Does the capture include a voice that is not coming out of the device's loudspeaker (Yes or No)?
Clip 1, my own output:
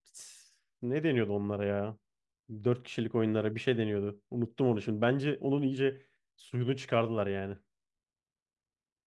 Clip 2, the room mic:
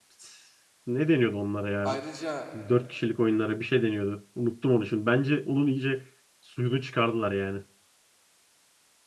Yes